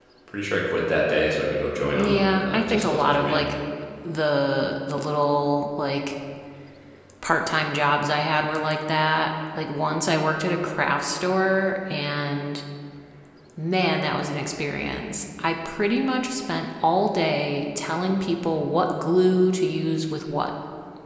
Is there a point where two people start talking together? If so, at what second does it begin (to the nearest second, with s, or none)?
2 s